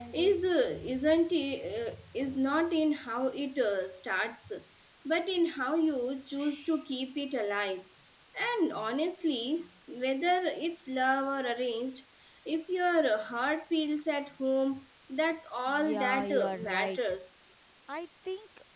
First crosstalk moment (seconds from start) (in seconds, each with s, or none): 15.7 s